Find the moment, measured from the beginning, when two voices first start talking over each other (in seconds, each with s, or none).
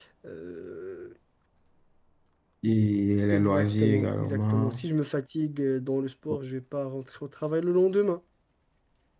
3.3 s